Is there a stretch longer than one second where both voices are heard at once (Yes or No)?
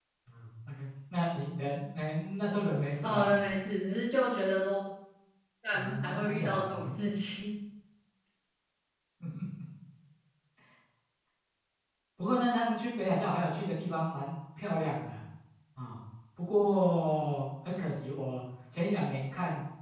Yes